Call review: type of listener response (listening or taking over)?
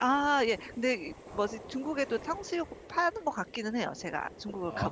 taking over